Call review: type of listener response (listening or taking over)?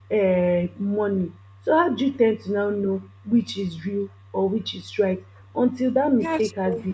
listening